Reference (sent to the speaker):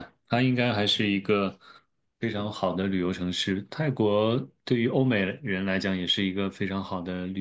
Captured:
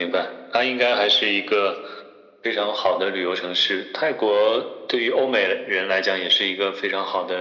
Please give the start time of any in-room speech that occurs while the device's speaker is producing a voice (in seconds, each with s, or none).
none